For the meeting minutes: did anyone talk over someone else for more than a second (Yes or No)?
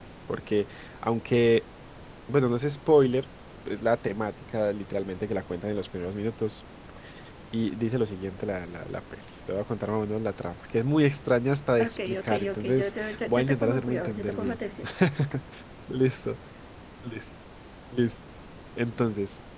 Yes